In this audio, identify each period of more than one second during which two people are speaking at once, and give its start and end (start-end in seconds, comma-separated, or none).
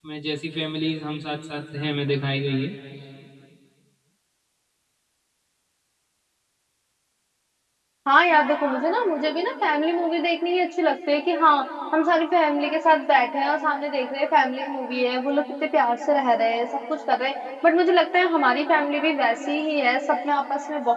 none